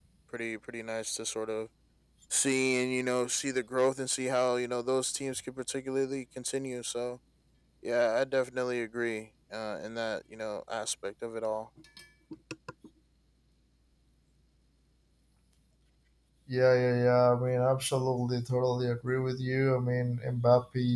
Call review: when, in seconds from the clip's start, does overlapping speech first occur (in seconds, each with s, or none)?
none